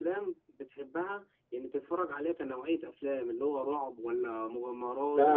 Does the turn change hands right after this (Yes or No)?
Yes